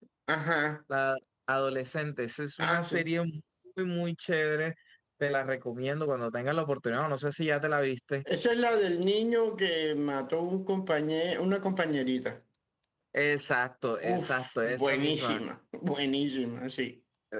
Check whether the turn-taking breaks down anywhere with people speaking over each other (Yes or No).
Yes